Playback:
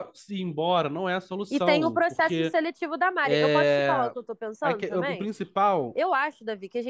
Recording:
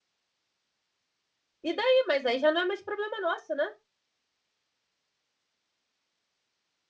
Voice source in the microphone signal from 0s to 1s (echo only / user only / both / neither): neither